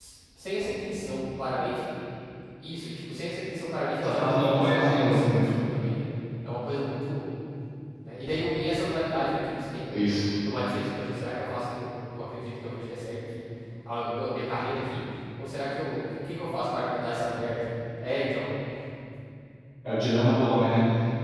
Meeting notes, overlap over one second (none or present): present